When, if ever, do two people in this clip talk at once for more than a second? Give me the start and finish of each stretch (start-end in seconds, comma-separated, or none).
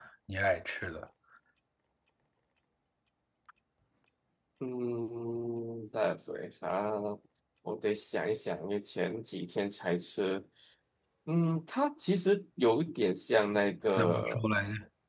none